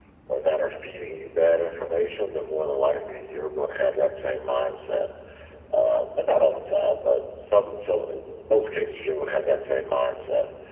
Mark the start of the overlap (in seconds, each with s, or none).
none